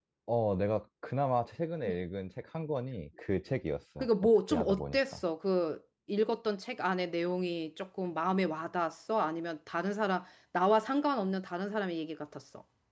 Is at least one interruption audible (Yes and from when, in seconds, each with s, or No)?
Yes, from 4.0 s